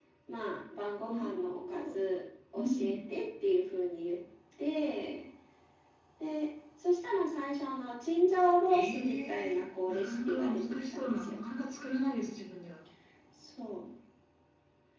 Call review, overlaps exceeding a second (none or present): present